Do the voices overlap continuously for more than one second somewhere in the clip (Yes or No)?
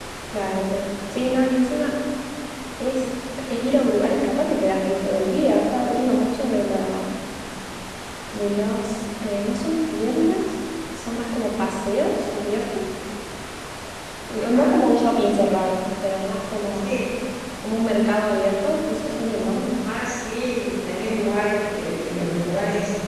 No